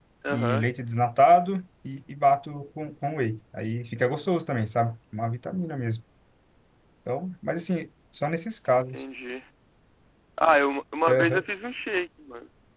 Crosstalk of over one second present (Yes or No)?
No